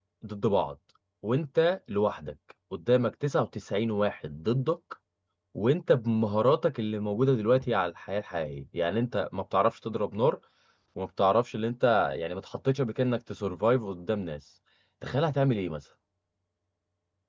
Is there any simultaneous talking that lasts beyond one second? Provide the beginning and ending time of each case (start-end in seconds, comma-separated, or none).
none